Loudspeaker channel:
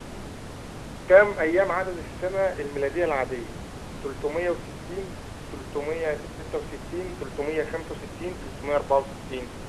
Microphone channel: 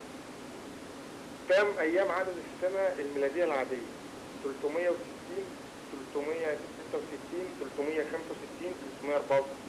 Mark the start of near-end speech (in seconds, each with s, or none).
none